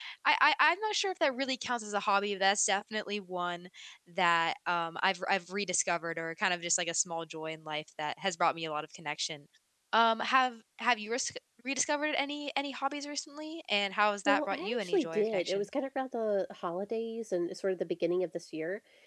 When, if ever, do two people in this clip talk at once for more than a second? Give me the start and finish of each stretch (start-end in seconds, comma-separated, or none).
14.3-15.7